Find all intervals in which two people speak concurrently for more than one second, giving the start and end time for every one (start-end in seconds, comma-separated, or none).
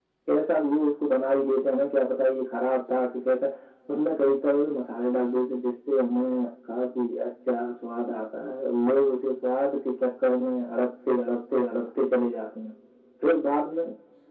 none